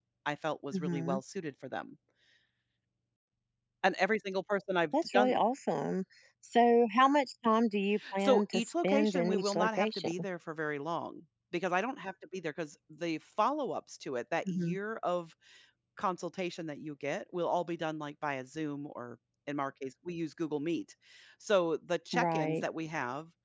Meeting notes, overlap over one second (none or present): present